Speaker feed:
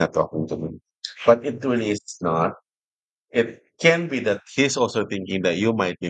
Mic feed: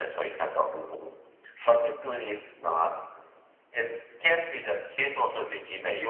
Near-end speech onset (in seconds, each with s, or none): none